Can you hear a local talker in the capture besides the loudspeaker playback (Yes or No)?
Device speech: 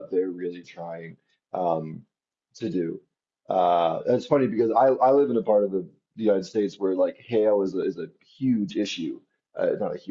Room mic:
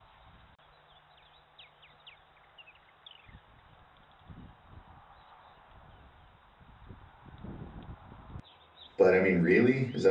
Yes